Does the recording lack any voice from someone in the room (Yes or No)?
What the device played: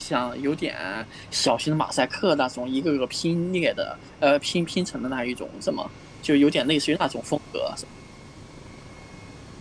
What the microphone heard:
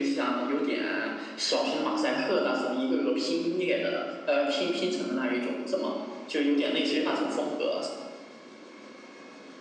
Yes